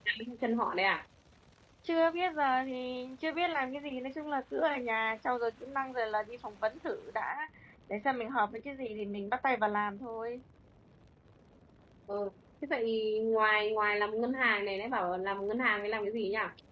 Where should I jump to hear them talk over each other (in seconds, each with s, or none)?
none